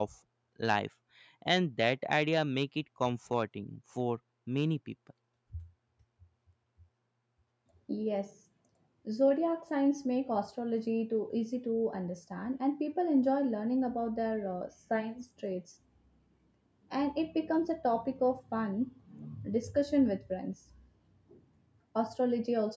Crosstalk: none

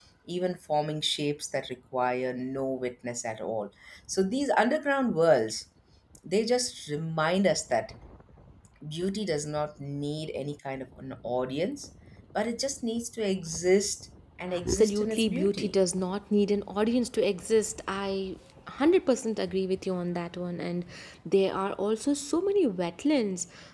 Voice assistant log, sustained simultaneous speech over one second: present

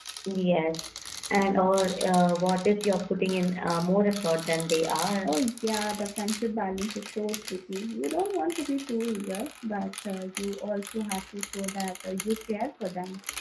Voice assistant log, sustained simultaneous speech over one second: none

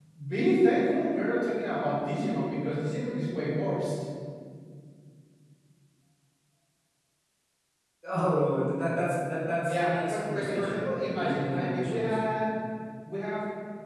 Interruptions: present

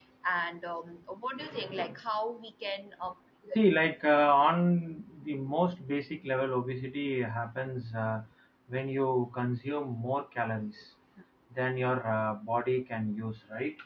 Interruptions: none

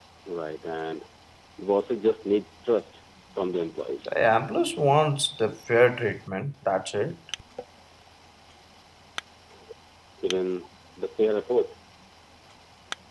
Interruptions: none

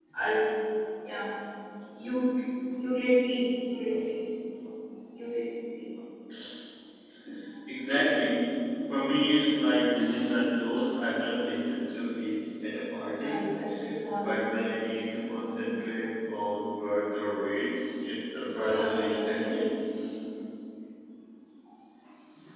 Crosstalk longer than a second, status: present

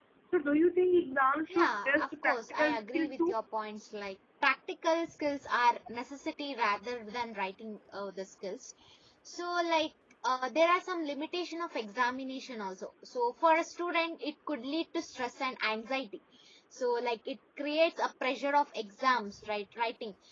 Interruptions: present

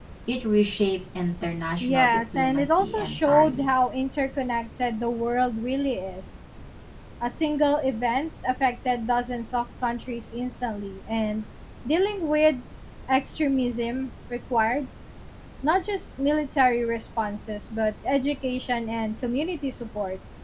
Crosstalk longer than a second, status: present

